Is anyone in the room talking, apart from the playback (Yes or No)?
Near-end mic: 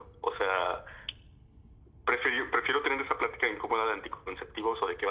No